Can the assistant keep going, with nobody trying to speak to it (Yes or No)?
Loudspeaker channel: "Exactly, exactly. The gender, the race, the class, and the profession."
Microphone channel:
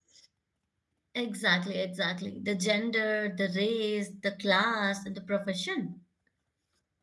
Yes